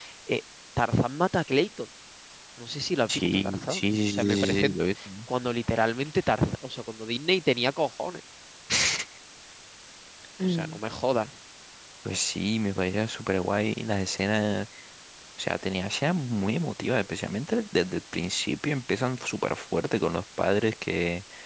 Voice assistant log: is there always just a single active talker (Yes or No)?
No